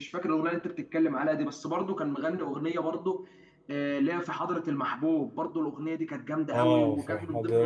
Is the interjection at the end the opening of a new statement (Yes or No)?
Yes